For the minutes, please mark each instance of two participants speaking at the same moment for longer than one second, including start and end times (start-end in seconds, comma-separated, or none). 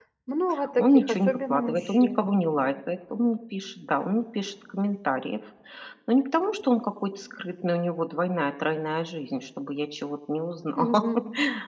0.8-2.2